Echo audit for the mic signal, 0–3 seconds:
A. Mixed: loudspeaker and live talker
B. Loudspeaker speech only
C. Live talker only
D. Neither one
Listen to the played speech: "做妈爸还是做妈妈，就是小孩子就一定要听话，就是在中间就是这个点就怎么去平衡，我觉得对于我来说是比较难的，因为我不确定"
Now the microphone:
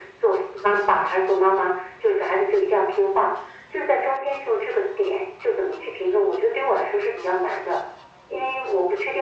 B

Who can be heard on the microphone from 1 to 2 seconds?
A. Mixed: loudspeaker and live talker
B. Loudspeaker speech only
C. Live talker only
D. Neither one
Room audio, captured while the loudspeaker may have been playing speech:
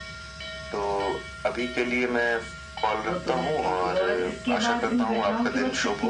B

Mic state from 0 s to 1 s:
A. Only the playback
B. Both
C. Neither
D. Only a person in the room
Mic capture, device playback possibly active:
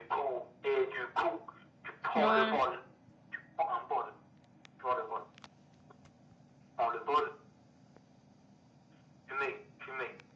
A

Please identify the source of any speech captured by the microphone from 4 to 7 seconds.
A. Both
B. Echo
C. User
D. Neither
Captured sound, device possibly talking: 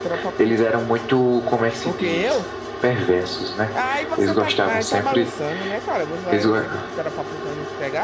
A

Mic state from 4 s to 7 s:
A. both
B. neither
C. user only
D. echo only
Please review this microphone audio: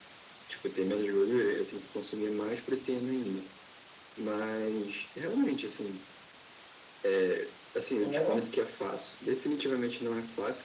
D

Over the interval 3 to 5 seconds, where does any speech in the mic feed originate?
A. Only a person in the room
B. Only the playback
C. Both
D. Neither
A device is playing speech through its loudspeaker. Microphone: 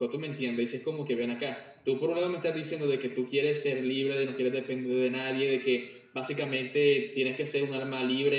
A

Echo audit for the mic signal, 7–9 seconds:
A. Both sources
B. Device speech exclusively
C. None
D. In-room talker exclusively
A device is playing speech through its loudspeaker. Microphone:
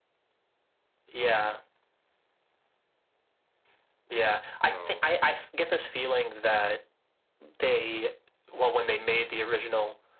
B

